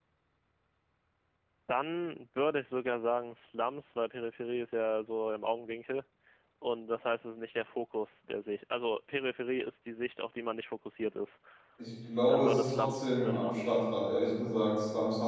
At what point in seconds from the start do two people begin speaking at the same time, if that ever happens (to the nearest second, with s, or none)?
12 s